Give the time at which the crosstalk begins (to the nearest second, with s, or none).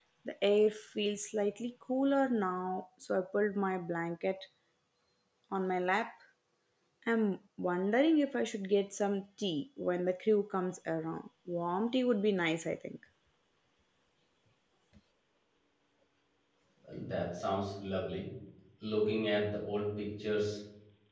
none